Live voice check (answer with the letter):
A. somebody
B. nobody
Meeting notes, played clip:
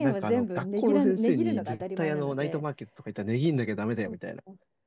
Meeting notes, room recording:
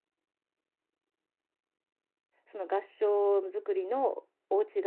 A